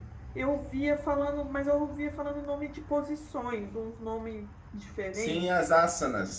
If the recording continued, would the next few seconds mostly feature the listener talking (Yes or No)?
Yes